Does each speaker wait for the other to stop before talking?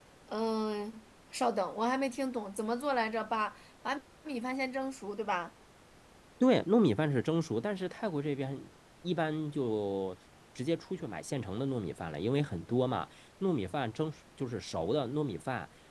Yes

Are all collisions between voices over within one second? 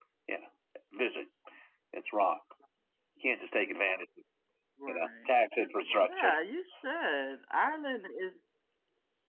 Yes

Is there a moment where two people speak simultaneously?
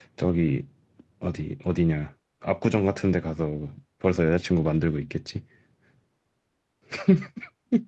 No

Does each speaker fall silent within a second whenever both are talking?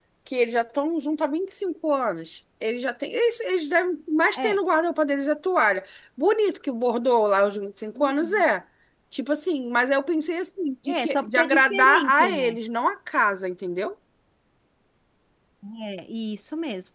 No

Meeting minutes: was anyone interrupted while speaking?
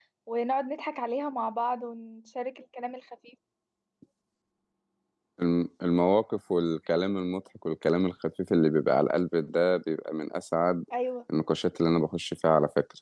No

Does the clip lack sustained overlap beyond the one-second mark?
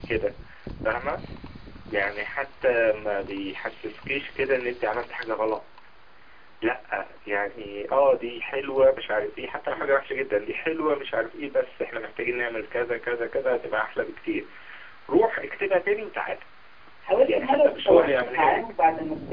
No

